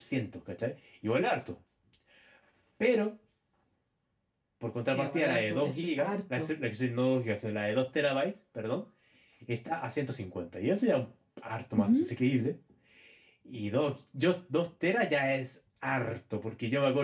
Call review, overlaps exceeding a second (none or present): present